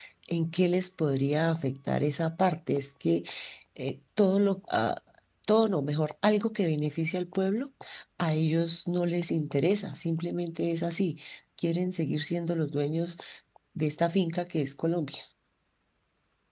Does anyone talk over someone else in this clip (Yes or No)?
No